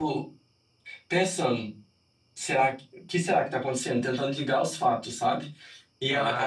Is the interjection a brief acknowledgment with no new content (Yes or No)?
No